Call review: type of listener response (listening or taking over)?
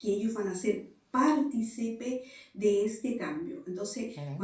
listening